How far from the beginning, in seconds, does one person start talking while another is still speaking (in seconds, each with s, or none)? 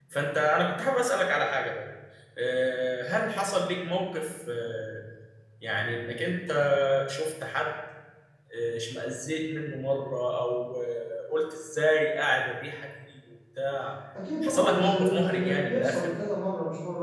14.4 s